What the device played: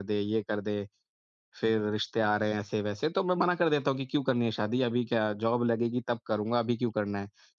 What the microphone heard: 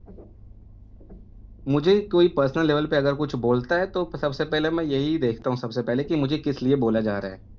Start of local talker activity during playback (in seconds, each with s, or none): 1.7 s